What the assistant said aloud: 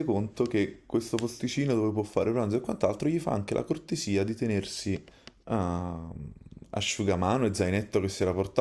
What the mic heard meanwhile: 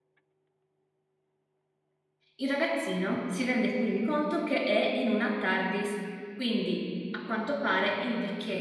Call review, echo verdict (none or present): none